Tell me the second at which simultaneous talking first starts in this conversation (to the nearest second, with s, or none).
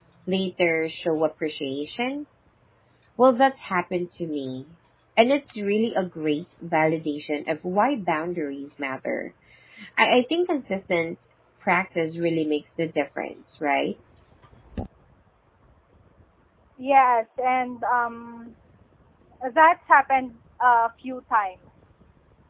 none